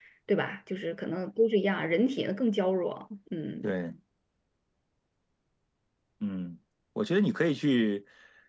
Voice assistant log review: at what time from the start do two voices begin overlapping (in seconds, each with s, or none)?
none